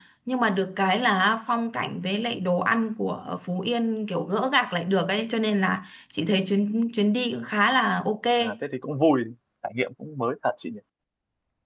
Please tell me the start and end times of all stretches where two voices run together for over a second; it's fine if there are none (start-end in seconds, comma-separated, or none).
none